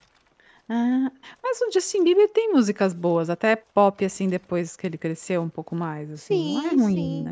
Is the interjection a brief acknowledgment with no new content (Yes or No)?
No